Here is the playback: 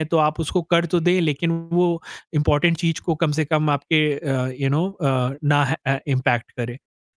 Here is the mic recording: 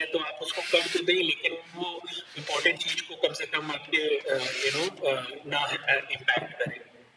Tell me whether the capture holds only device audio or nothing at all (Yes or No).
Yes